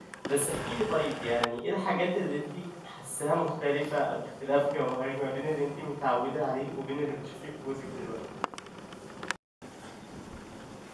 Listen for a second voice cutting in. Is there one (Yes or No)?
No